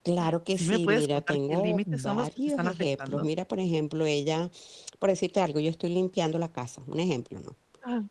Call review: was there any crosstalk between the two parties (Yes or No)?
Yes